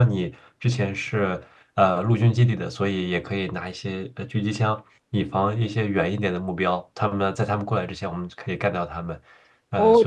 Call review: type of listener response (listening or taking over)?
taking over